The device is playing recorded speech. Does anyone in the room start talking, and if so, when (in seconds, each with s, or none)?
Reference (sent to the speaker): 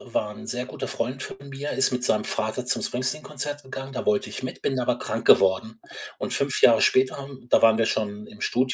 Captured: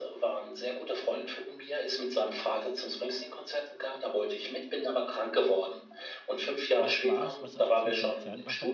6.8 s